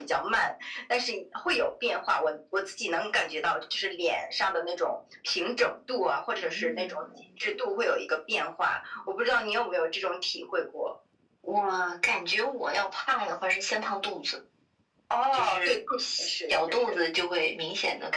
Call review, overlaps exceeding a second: present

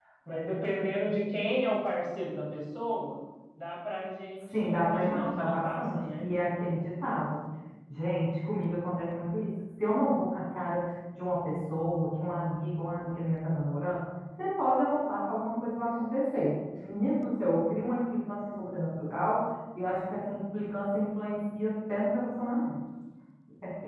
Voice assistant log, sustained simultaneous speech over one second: present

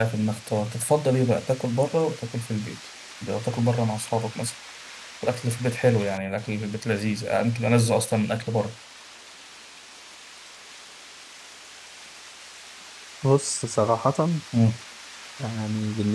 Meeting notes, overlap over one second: none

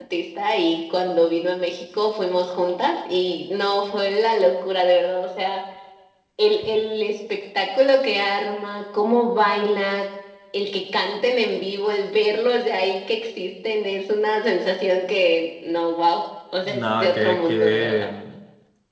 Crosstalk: present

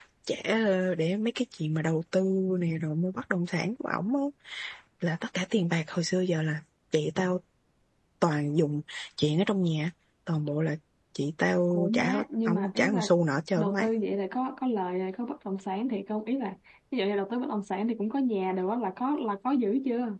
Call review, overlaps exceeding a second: present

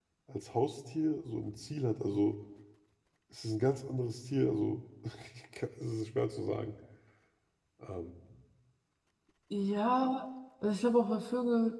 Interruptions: none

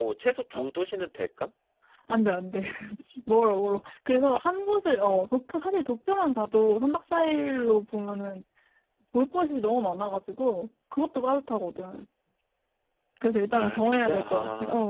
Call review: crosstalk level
present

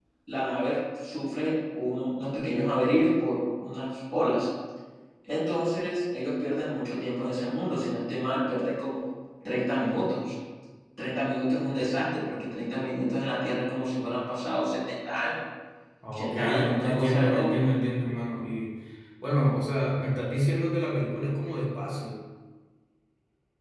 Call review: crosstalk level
present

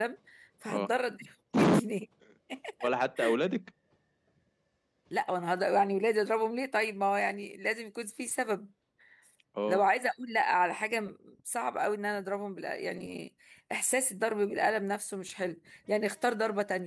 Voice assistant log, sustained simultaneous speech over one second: none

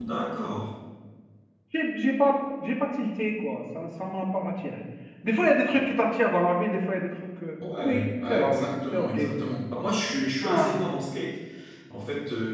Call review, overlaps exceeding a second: present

